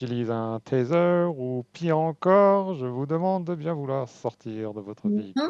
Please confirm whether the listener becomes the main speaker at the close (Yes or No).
Yes